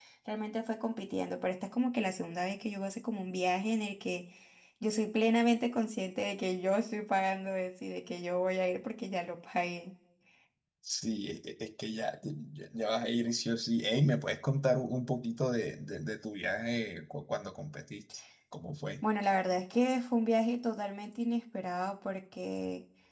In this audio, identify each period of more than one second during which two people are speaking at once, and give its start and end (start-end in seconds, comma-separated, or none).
none